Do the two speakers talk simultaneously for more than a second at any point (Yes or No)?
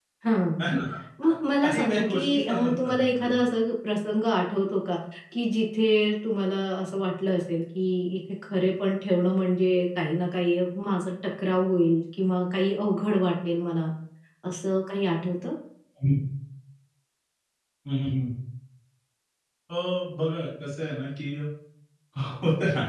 Yes